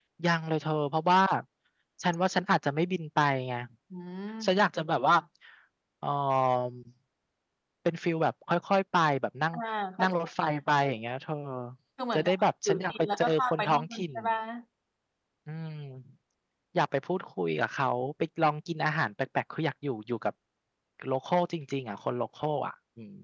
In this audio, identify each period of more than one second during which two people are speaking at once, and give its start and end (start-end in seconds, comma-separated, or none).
12.2-14.0